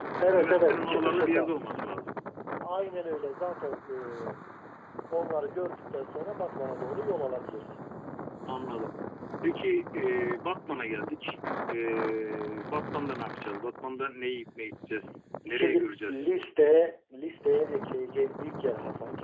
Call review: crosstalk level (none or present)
present